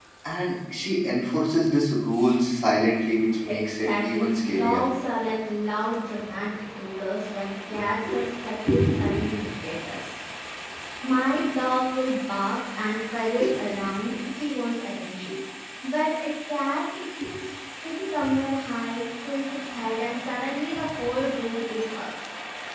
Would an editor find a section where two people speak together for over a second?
Yes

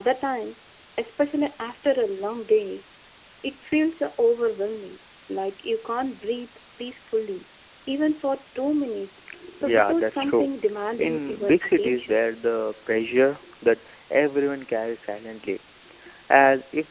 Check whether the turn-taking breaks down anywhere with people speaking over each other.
Yes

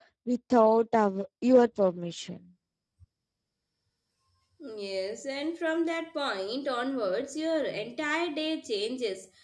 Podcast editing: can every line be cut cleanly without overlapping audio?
Yes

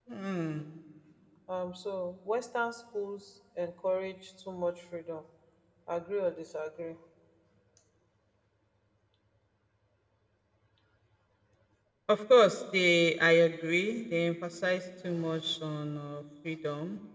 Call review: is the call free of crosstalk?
Yes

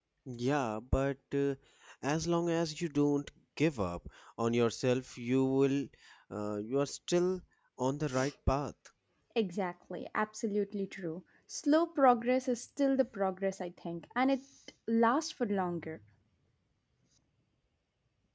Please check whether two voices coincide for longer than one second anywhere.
No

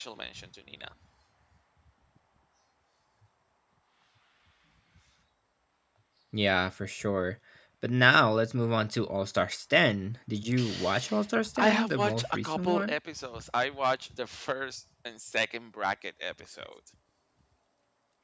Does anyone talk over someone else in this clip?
Yes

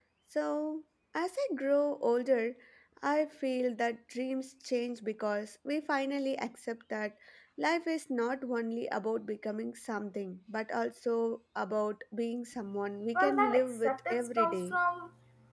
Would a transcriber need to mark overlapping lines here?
Yes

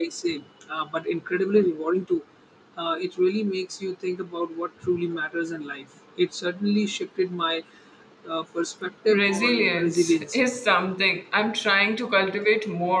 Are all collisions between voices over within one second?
No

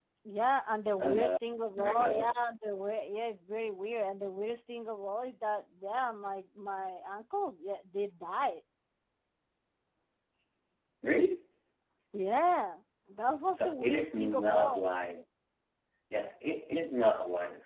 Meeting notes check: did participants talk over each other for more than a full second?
Yes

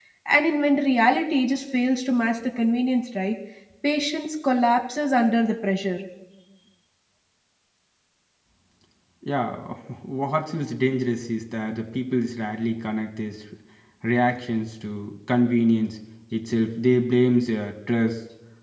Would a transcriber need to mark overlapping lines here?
No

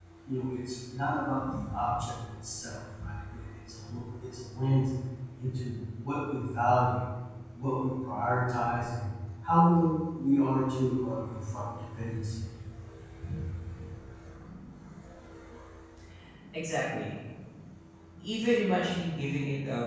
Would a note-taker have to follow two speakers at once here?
No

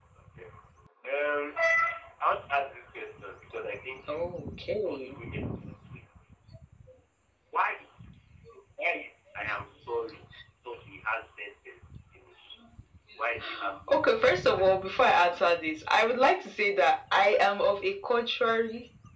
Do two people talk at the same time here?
Yes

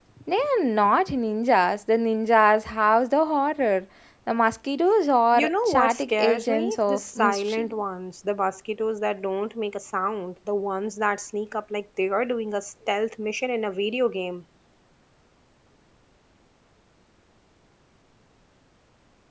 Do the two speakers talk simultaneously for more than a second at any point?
Yes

